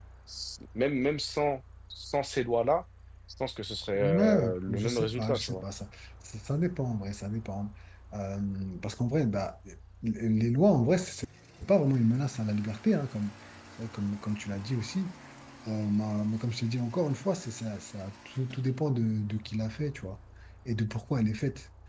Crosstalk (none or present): present